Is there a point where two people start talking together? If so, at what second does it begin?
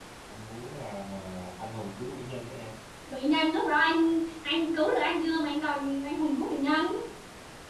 none

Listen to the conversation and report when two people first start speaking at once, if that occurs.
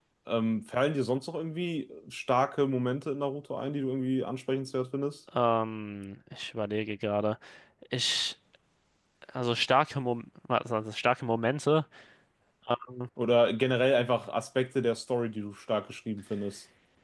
none

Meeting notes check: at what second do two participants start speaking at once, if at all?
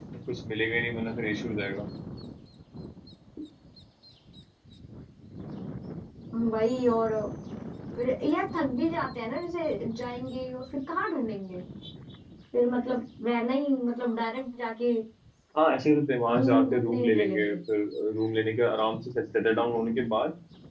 16.3 s

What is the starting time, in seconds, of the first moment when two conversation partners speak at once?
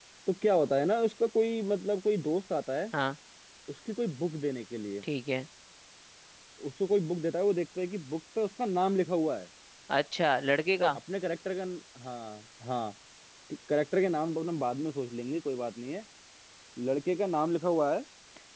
none

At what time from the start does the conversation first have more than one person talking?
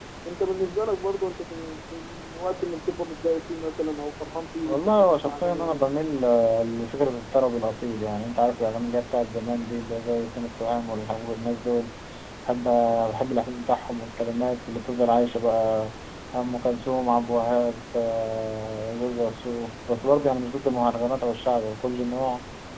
4.7 s

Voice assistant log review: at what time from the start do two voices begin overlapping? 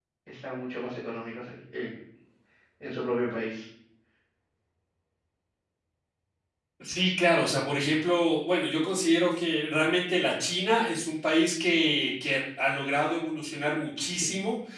none

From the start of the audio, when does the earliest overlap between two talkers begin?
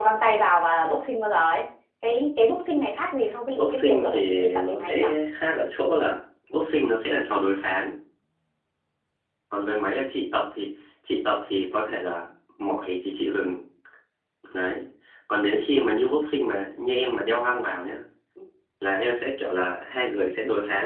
3.6 s

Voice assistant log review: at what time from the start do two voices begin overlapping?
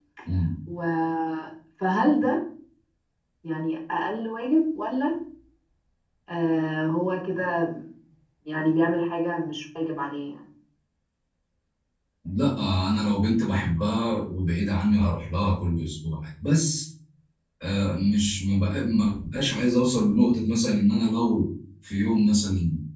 none

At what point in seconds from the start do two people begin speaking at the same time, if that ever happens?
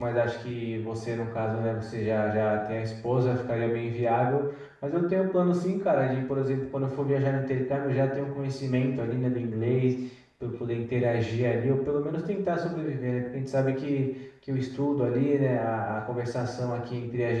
none

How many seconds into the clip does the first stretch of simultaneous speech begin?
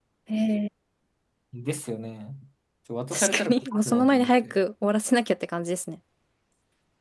3.1 s

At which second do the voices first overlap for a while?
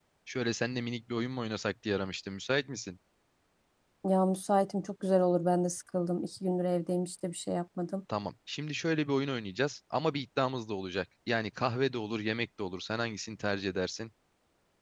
none

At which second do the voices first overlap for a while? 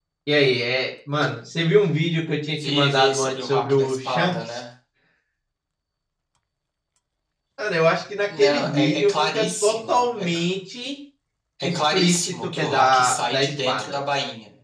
2.5 s

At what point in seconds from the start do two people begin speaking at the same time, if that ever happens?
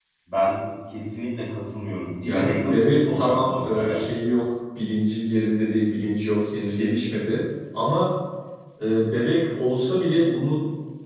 2.2 s

